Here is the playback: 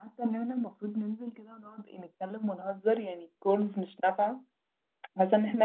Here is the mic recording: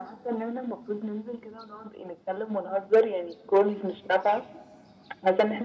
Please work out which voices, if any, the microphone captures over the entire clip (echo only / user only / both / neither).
echo only